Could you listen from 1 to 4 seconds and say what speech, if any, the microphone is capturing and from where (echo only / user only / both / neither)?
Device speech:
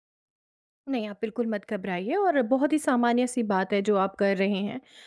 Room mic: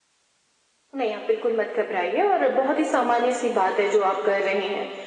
echo only